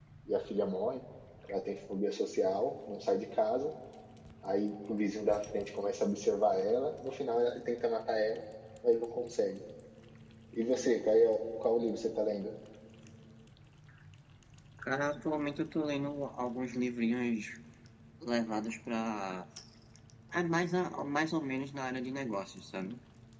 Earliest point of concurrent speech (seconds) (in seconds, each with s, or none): none